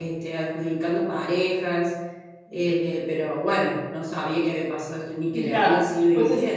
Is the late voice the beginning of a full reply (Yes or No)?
Yes